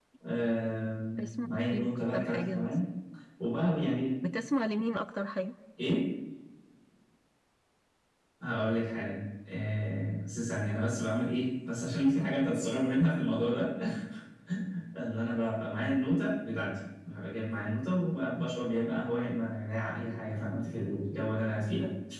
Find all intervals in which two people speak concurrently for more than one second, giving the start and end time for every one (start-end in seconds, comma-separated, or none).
1.2-2.7